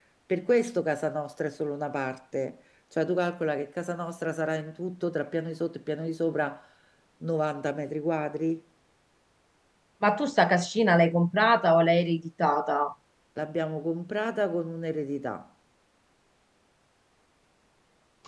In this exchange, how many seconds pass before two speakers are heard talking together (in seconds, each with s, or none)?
none